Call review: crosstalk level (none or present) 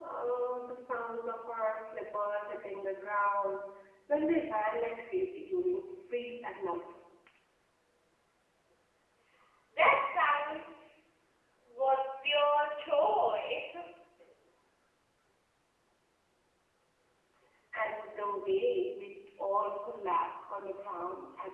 none